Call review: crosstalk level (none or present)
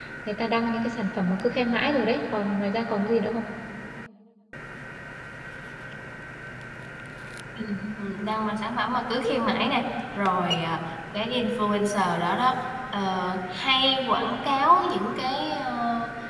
none